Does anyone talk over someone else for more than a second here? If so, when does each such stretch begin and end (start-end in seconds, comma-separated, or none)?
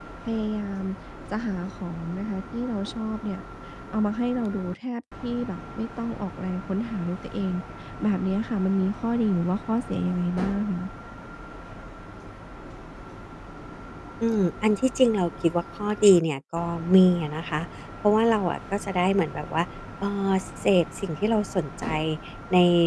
none